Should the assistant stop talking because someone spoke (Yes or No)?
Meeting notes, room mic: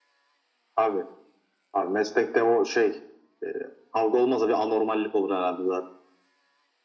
No